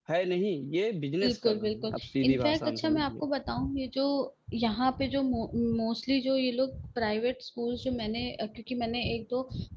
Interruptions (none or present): present